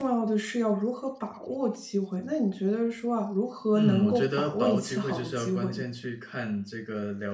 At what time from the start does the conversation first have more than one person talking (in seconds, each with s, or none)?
3.8 s